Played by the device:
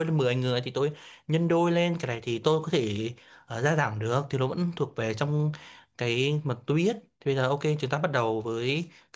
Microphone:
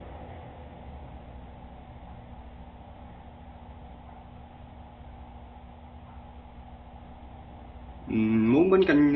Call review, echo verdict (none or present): none